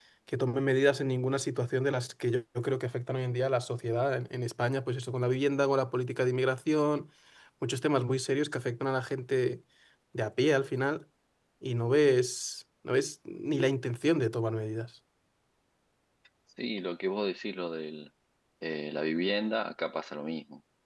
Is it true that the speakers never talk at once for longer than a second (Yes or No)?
Yes